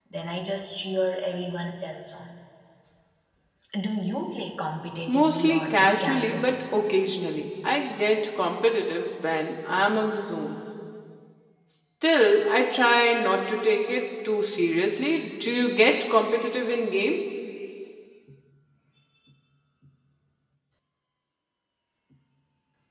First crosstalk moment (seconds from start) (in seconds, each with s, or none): 5.1 s